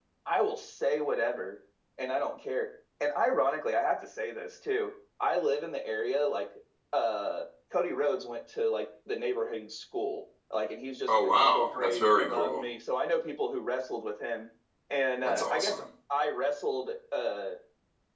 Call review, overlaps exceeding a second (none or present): present